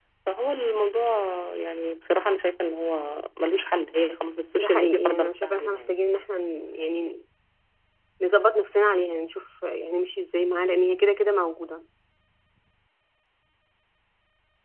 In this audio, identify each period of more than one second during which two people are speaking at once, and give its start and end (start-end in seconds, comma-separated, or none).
4.6-5.9